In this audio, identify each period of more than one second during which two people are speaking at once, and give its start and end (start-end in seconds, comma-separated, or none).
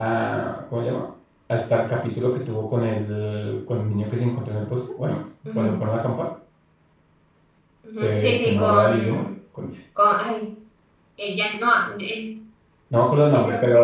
8.0-9.2